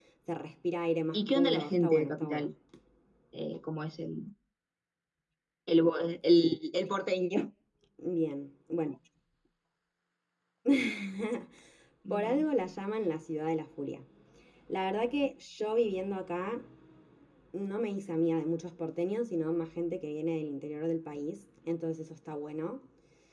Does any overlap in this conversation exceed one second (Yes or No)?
Yes